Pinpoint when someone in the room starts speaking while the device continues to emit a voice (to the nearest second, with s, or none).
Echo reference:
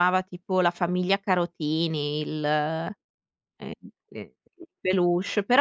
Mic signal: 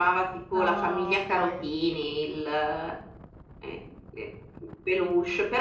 1 s